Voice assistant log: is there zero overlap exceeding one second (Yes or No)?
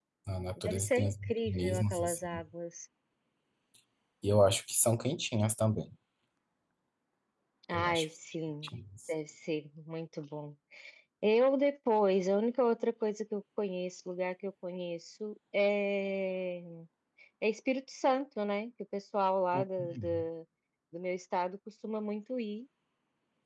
No